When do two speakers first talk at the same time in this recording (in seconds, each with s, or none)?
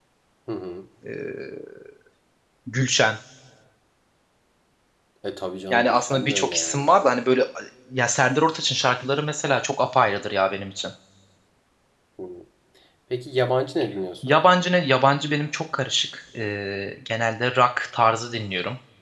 5.7 s